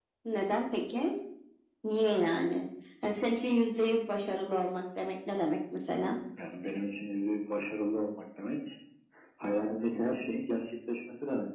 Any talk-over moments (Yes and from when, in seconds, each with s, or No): No